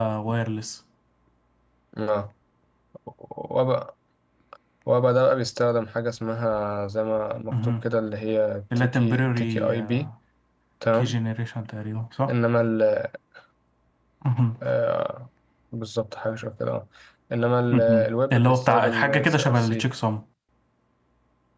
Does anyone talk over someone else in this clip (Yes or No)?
Yes